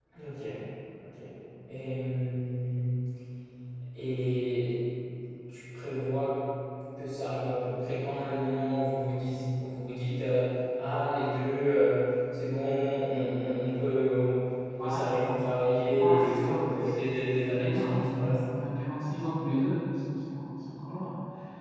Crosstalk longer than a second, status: present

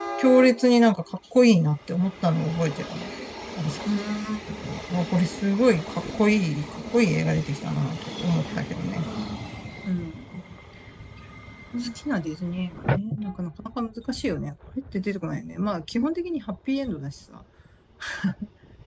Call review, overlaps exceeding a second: none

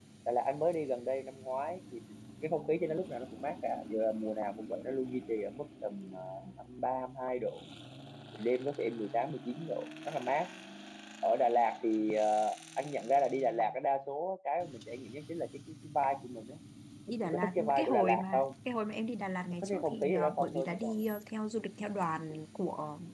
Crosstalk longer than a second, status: present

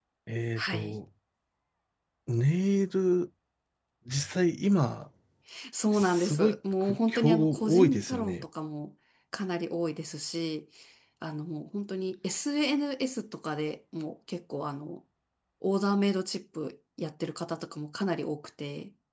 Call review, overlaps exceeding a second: present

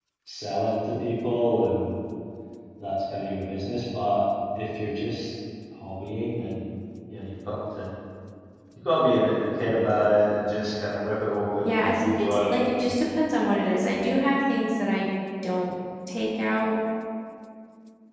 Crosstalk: present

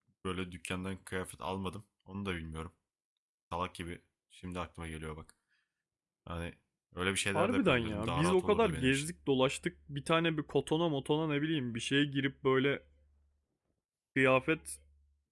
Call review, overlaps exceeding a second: present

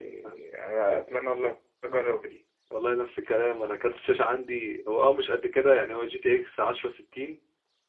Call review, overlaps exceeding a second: none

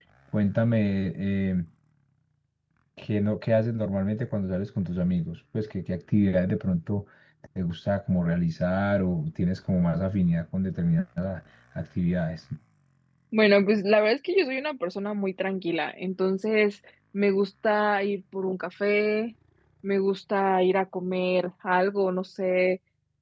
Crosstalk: none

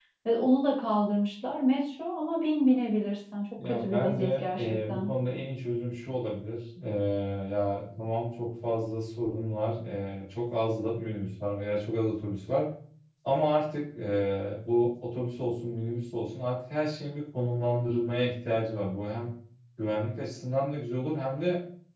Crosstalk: present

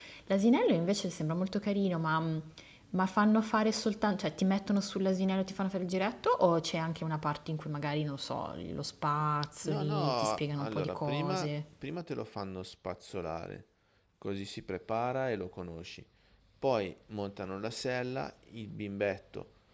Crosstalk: present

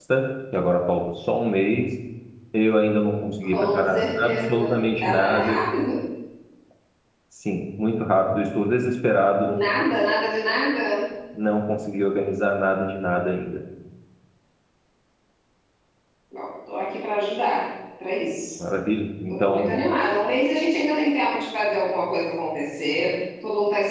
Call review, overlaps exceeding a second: present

